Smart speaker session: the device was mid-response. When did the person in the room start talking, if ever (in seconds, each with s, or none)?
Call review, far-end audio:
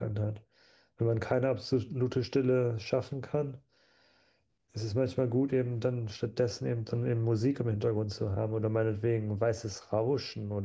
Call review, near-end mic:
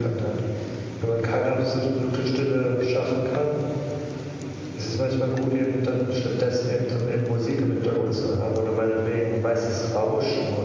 none